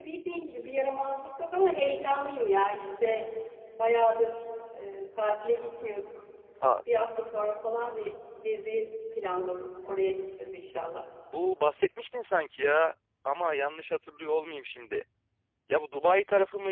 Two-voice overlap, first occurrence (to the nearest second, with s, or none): none